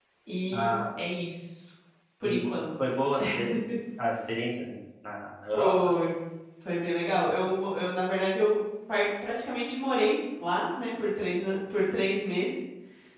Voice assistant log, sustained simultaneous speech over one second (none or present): none